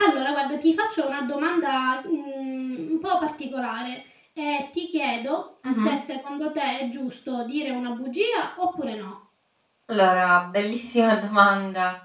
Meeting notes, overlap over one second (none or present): none